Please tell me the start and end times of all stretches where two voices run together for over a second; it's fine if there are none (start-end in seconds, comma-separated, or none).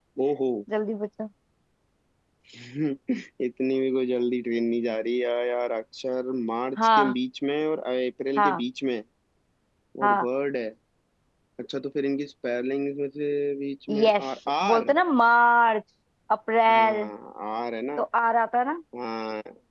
none